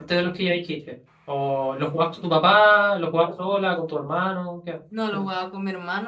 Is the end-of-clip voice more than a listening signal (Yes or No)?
Yes